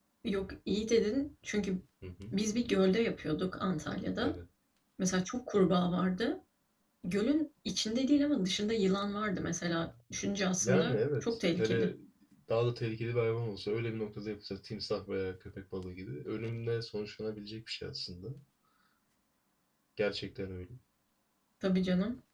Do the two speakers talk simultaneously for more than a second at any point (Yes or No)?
Yes